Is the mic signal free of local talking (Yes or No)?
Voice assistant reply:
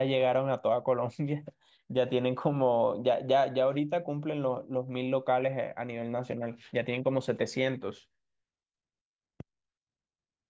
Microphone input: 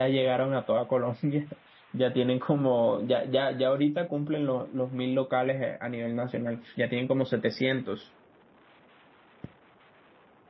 Yes